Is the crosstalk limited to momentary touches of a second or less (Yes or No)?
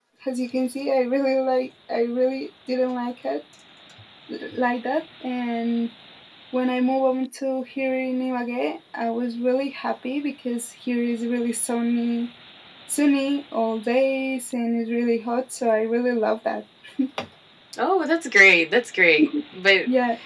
Yes